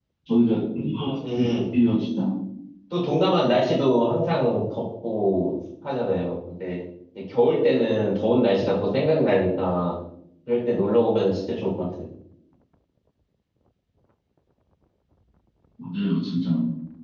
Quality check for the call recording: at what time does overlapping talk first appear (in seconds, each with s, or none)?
none